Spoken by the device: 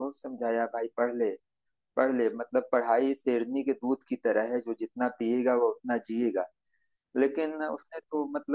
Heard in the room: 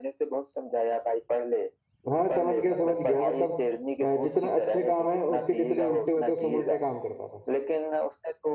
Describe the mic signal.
both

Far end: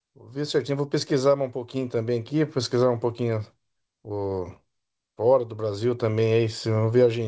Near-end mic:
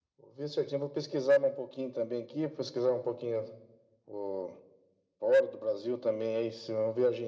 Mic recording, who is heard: echo only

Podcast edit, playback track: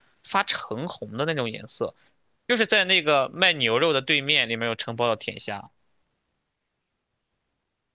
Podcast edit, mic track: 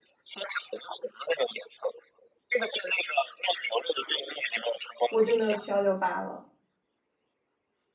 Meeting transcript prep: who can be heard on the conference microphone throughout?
both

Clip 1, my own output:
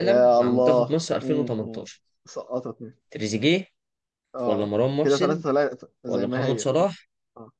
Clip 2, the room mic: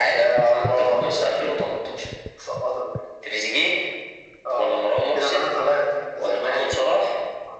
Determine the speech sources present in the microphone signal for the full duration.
echo only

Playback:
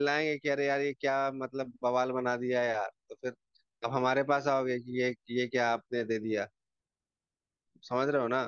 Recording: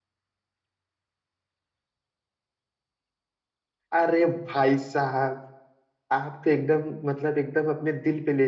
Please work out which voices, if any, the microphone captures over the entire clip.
user only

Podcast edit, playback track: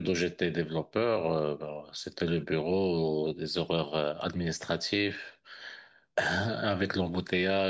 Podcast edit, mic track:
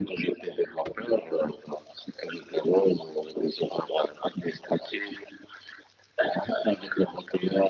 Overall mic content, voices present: echo only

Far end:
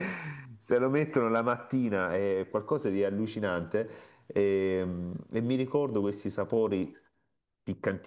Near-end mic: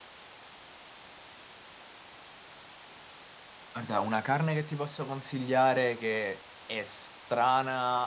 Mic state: user only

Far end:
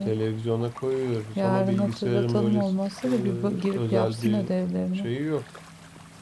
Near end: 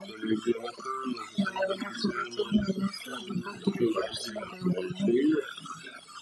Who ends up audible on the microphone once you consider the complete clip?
echo only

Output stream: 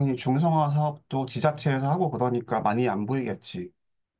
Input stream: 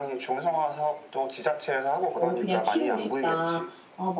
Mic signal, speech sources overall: both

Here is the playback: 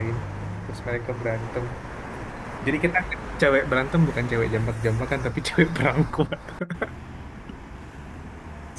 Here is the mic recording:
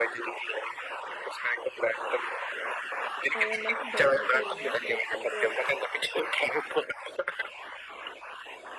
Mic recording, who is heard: both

